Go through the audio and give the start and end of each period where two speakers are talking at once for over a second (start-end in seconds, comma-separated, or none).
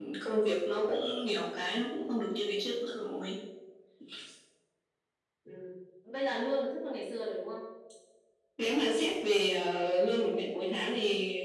none